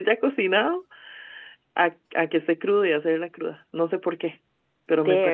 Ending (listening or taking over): listening